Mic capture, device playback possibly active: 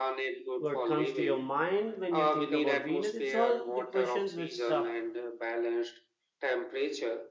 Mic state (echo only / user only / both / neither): both